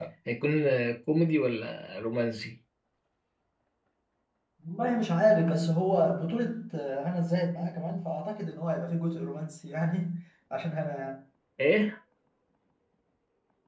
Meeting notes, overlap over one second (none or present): none